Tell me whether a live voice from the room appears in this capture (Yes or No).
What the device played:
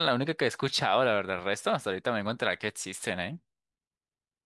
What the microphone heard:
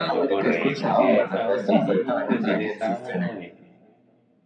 Yes